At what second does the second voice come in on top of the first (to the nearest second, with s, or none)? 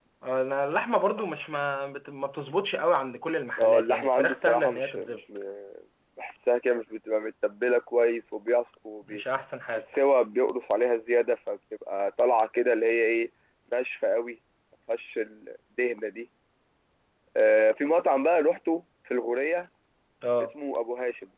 4 s